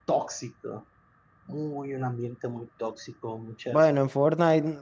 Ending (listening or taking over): taking over